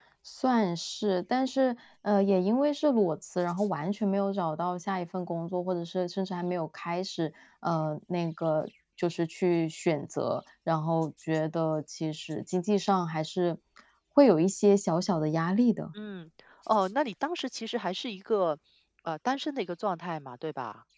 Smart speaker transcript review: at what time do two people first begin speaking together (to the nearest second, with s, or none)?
none